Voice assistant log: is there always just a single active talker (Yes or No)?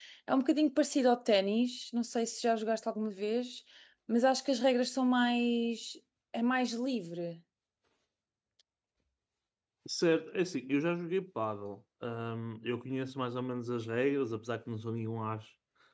Yes